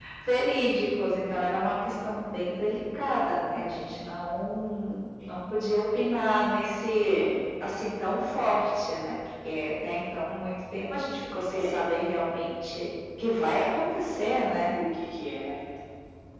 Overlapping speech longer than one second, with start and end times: none

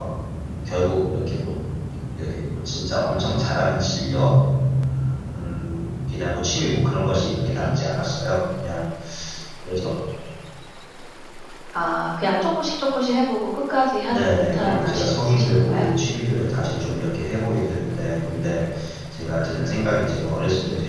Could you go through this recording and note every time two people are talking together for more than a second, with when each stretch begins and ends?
14.1-15.8

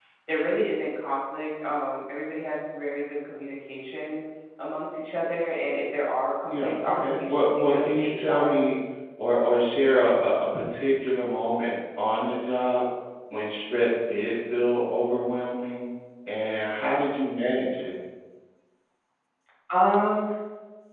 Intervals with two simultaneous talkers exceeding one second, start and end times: 6.5-8.6

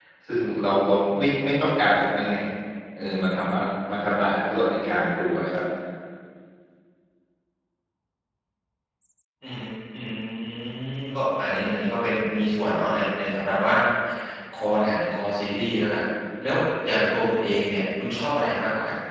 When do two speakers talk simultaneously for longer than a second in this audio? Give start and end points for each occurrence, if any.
none

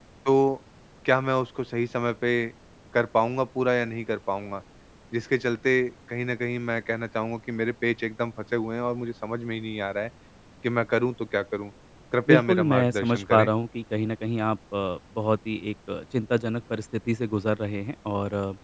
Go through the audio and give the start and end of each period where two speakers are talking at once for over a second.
12.3-13.5

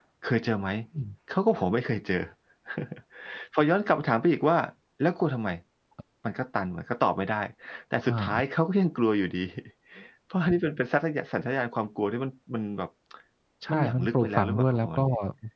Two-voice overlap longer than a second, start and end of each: 13.7-15.0

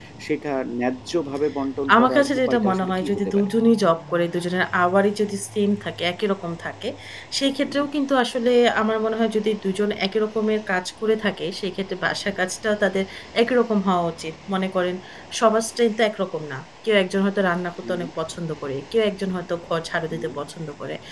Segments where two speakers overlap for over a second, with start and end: 2.0-3.5

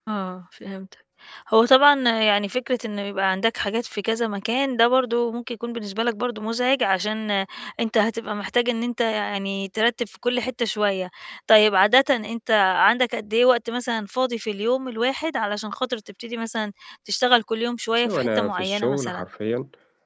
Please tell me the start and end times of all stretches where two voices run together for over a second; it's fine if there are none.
18.0-19.3

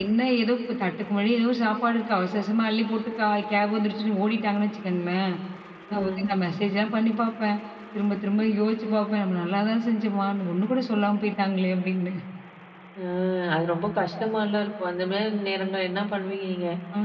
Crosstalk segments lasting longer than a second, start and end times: none

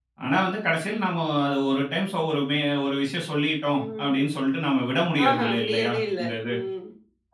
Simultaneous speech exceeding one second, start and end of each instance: 5.3-6.5

